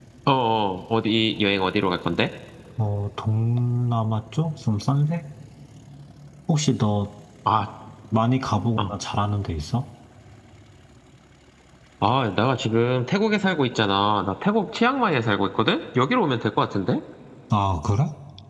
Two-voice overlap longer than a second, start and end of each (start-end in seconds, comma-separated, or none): none